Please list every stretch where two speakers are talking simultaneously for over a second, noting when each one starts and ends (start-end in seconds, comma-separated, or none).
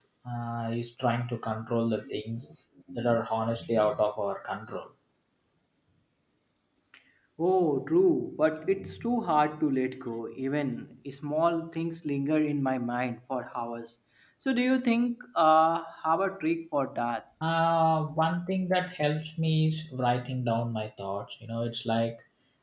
none